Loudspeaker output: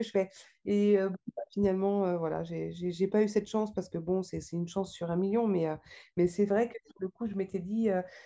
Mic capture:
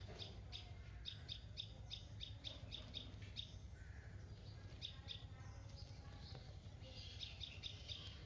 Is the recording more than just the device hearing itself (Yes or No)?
No